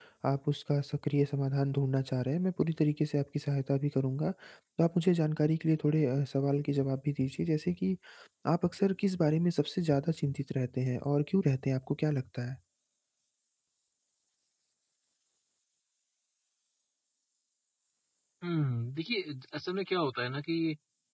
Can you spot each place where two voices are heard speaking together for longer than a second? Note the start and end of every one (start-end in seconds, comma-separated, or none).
none